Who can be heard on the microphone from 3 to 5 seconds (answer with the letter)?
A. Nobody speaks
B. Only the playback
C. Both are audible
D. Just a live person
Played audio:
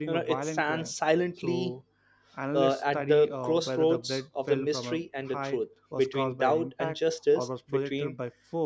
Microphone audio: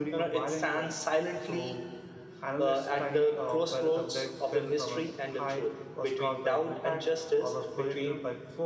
B